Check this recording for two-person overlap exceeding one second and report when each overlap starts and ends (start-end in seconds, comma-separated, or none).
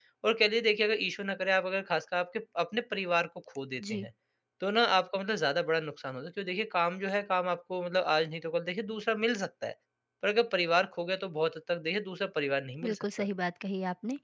none